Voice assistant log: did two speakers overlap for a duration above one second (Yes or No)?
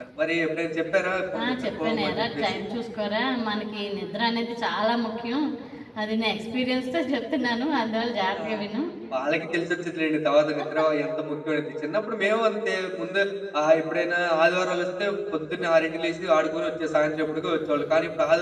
Yes